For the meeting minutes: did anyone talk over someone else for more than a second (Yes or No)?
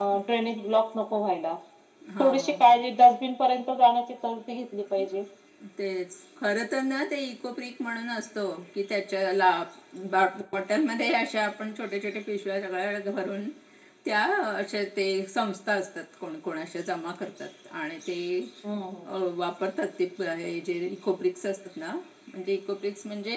No